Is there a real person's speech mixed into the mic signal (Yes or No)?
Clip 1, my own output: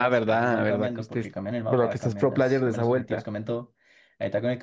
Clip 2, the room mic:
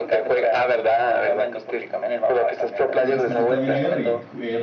Yes